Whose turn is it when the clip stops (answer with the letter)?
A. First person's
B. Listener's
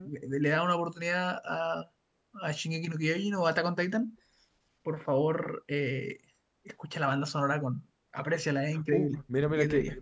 B